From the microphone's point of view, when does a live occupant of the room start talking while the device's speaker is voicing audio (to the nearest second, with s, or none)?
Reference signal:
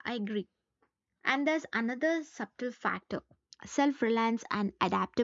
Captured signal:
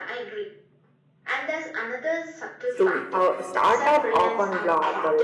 3 s